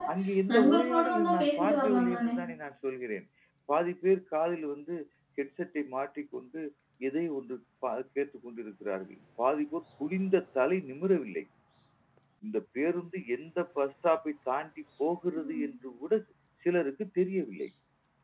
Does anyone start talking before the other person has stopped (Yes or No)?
Yes